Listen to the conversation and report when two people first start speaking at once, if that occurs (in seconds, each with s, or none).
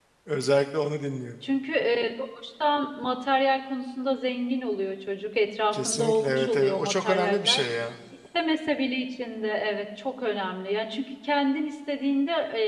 5.7 s